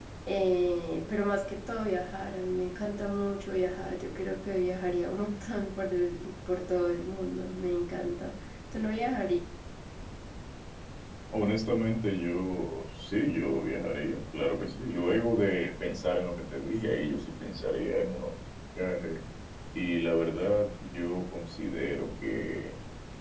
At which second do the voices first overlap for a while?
none

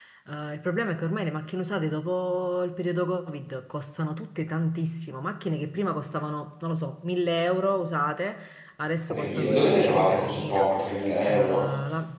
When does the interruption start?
9 s

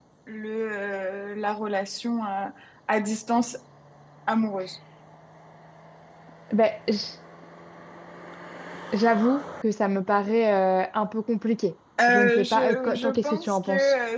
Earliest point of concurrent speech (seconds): 12 s

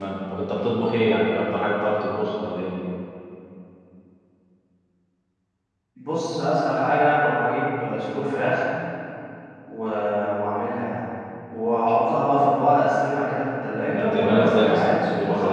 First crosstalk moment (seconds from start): 14 s

